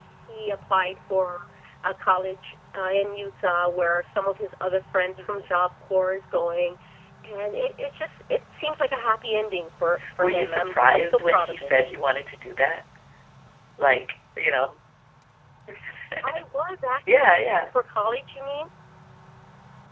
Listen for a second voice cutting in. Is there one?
Yes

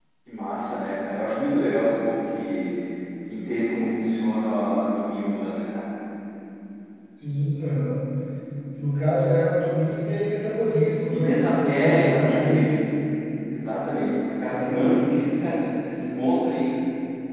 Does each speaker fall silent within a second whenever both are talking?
No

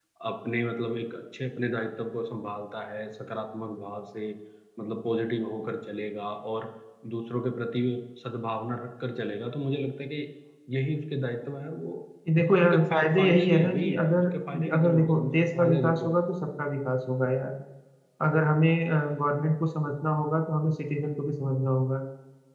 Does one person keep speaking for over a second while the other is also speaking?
Yes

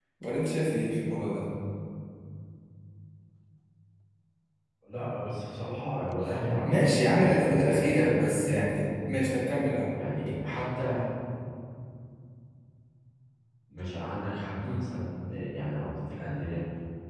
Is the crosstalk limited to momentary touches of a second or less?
No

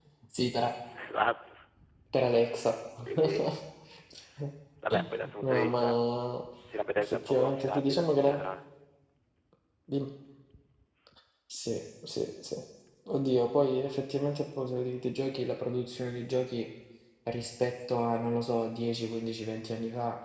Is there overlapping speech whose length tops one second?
Yes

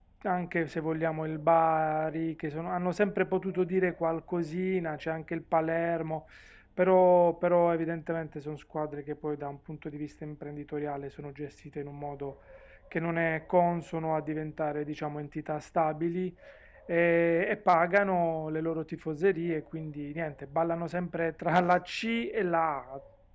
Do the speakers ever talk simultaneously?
No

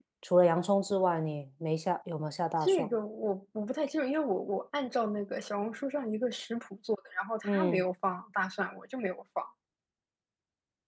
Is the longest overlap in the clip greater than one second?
No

